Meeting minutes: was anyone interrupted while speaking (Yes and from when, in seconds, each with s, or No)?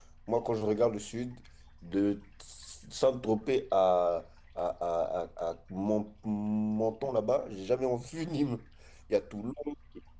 No